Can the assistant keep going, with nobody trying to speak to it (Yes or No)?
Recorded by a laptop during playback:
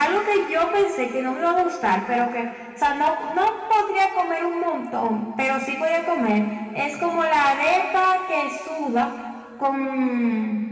Yes